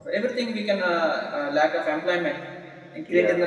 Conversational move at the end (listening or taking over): listening